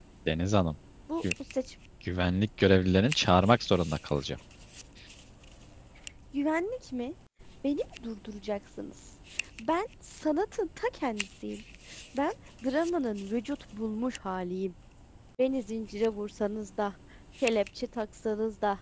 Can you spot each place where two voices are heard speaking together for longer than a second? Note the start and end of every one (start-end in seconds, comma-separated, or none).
none